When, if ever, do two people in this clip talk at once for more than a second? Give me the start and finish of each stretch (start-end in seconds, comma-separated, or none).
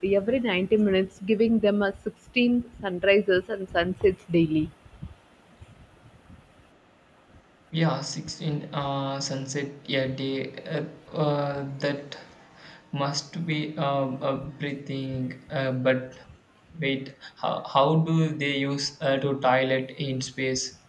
none